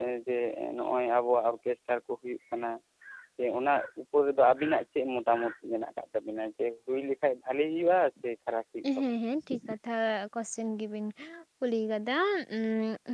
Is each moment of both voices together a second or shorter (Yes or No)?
Yes